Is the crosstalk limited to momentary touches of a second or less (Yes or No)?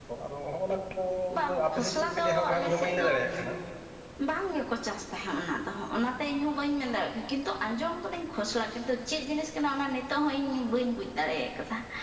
No